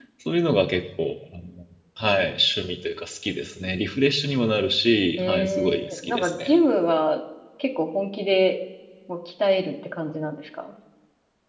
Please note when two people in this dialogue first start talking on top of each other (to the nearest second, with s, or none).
5 s